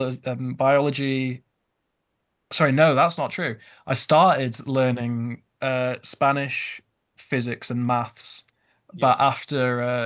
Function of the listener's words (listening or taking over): listening